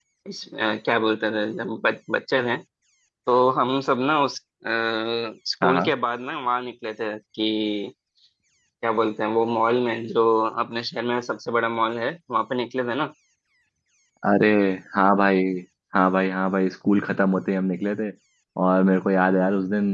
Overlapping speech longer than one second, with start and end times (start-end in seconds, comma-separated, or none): none